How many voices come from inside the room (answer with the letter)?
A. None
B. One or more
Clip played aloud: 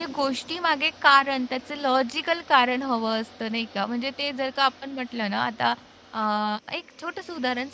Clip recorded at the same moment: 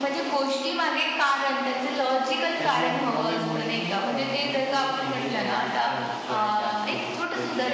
B